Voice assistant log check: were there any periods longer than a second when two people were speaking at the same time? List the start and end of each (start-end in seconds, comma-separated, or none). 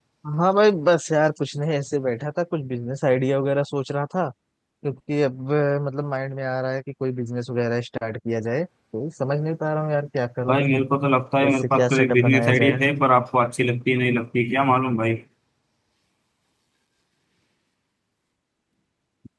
11.4-12.8